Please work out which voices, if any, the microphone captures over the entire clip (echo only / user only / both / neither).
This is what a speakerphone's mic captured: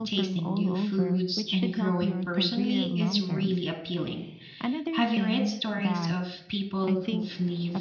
both